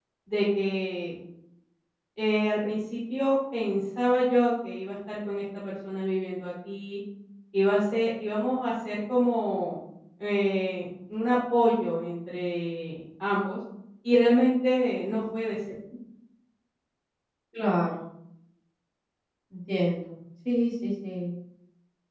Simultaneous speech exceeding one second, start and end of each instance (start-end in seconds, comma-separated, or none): none